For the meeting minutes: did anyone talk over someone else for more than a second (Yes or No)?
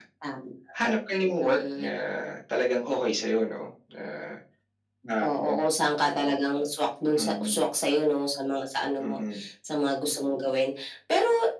No